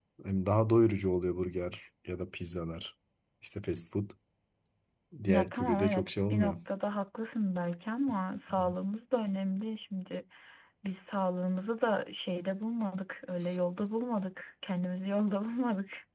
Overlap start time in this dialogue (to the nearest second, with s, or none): 5 s